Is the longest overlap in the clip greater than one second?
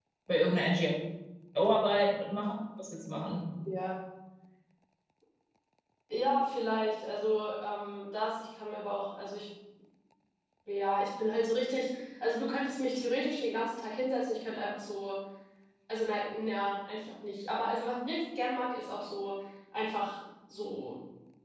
No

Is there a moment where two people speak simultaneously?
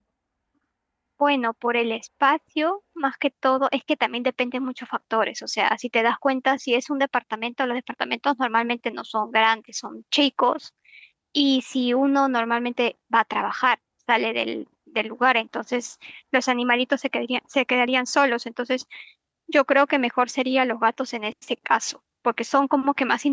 No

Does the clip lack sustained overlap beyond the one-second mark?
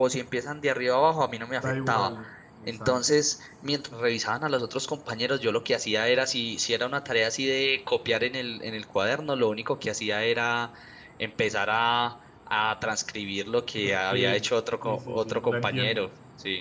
No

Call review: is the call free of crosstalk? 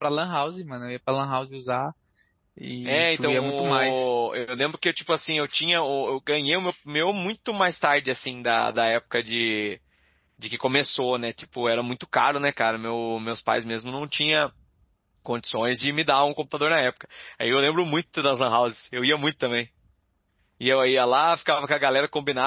No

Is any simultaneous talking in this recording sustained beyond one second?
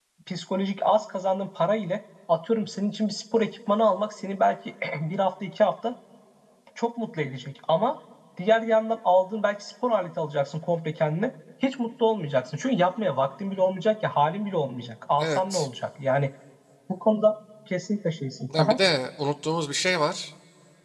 No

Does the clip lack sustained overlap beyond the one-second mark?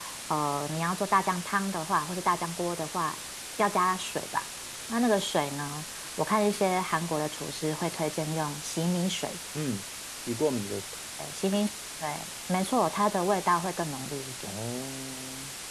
Yes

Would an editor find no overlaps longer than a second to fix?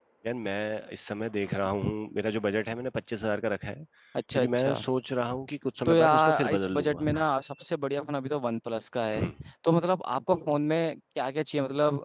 No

